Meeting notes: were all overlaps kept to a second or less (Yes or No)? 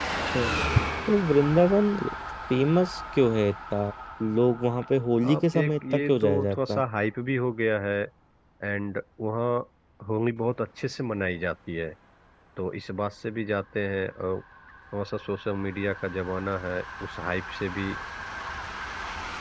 No